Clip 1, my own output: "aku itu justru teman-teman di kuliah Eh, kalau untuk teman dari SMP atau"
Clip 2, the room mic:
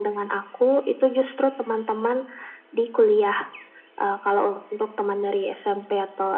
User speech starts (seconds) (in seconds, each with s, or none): none